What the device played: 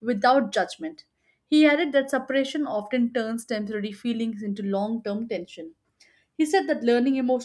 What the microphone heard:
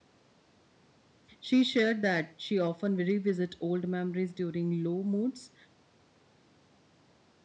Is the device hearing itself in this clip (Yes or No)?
No